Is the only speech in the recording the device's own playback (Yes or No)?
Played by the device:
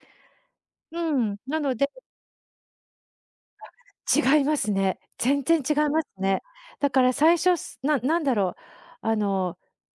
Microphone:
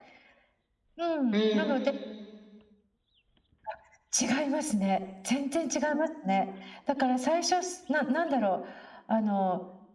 No